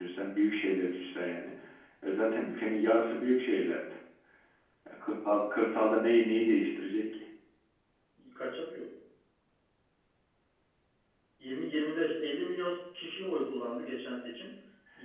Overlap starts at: none

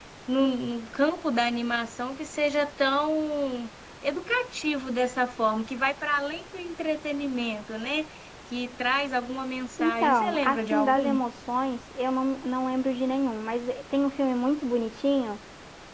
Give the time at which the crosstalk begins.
9.8 s

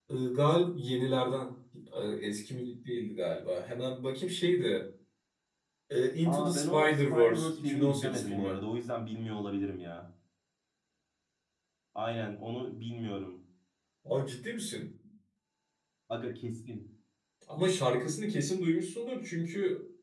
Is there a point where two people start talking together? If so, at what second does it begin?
6.3 s

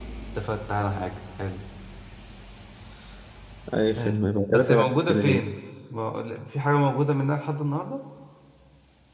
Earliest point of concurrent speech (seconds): 4.0 s

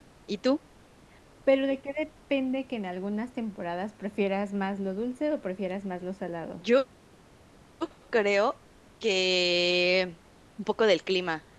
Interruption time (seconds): none

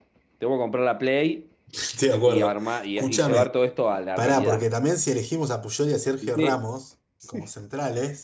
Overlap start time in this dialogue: 2.3 s

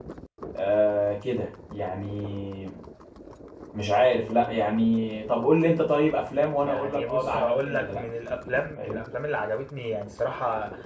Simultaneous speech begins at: 6.6 s

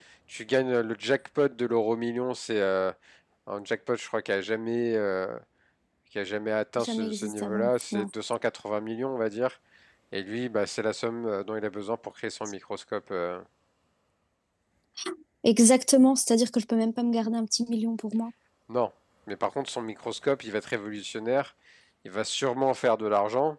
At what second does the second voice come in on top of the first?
6.8 s

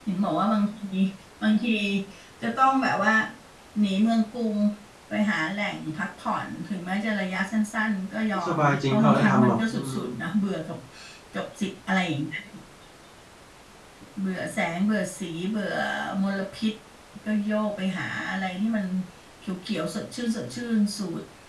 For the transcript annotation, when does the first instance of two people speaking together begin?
8.3 s

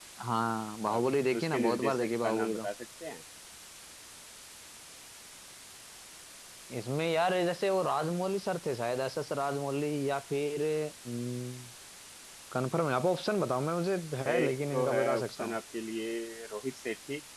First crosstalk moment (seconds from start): 0.9 s

